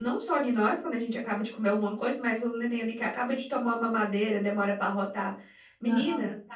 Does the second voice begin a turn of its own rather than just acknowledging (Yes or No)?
No